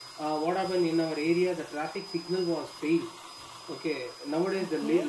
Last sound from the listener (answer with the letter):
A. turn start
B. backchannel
B